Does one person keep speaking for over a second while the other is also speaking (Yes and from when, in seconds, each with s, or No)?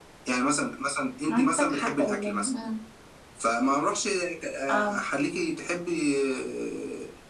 Yes, from 1.3 s